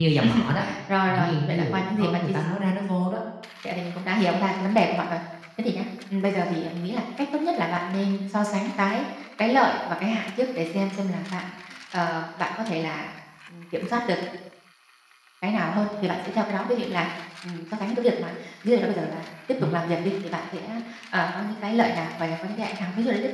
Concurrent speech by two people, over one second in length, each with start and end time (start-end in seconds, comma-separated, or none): 1.1-2.3